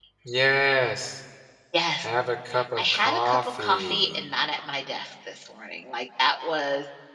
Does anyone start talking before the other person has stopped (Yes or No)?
Yes